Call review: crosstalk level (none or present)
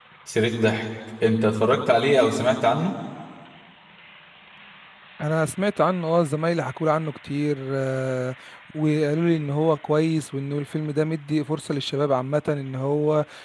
none